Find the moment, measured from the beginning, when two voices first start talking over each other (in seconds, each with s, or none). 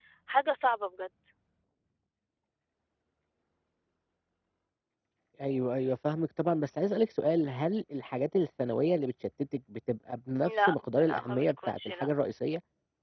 10.4 s